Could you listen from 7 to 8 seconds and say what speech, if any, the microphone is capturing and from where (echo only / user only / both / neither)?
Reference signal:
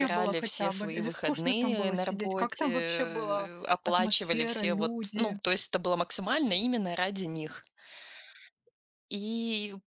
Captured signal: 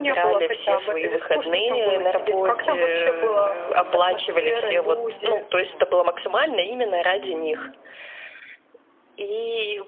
echo only